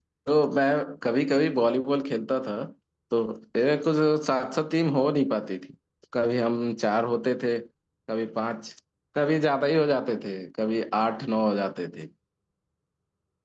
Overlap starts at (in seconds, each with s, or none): none